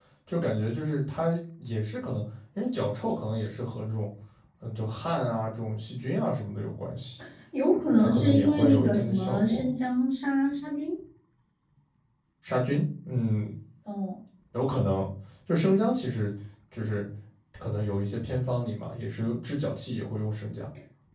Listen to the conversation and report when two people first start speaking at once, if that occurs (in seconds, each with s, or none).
8.0 s